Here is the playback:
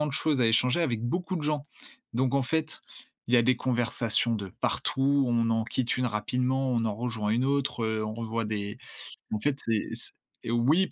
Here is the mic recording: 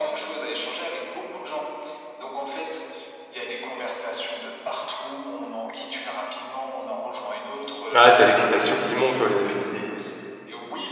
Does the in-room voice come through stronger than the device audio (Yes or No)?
Yes